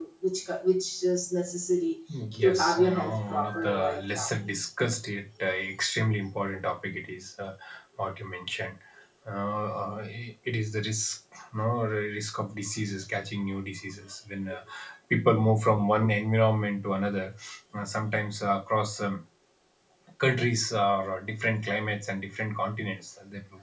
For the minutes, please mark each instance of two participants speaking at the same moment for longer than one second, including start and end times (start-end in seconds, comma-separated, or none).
2.4-4.3